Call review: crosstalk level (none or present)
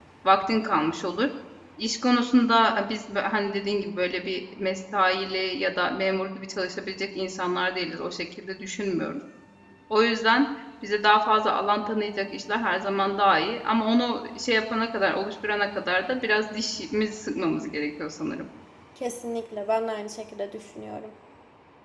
none